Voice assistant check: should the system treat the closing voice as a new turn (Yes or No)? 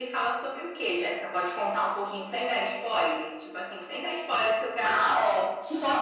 Yes